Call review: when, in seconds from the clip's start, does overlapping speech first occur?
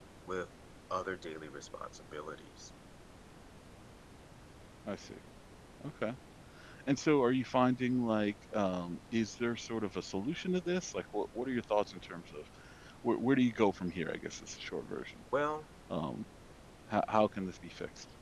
none

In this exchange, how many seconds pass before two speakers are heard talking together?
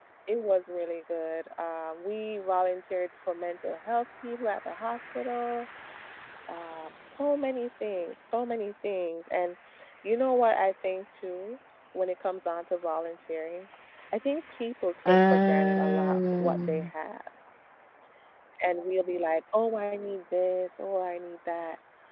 15 s

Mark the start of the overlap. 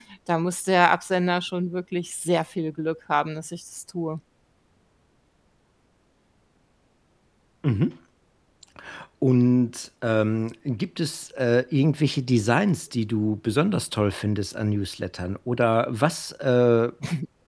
none

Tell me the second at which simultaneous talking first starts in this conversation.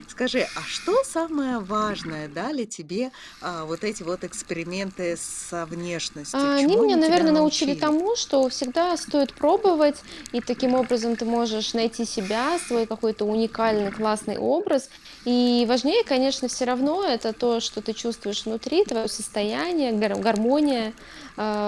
6 s

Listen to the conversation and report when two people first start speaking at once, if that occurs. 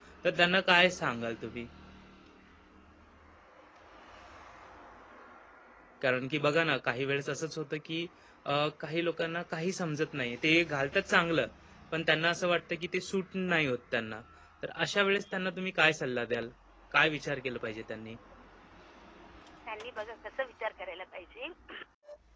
none

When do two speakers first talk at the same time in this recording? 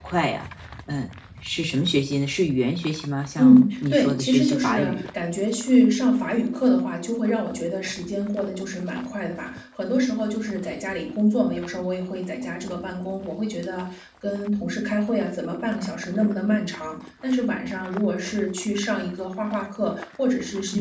3 s

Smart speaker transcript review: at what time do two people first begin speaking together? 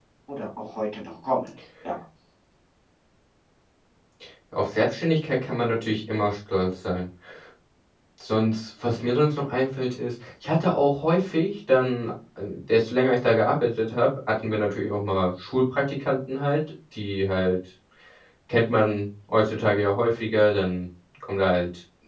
none

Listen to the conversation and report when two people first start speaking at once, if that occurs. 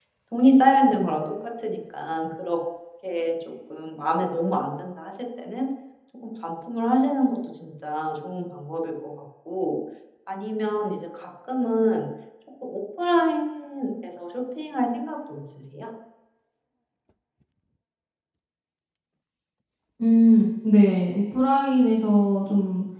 none

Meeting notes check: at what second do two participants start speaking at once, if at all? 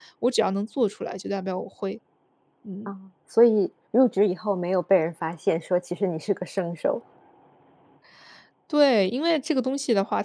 none

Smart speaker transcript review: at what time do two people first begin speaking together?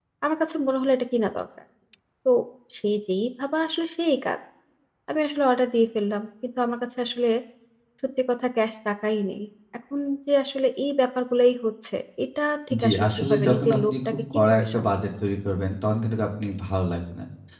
13 s

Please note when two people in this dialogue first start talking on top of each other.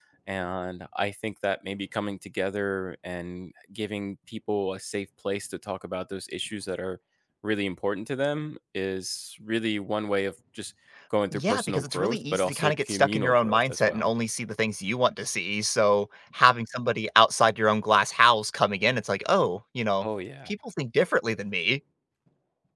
11 s

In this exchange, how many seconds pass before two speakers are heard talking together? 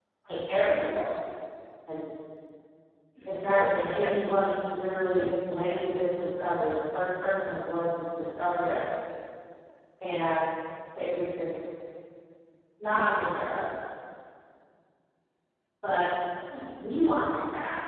3 s

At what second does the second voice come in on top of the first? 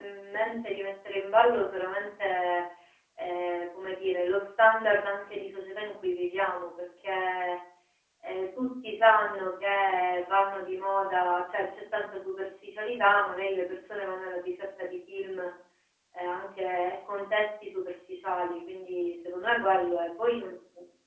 none

